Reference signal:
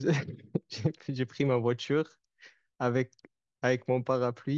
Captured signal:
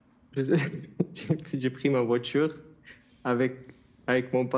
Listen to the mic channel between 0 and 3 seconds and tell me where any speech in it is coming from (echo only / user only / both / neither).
echo only